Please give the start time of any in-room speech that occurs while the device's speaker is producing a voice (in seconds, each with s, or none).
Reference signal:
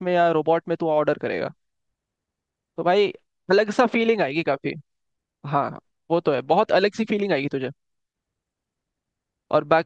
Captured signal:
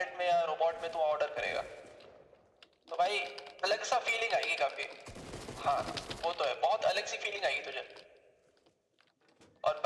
none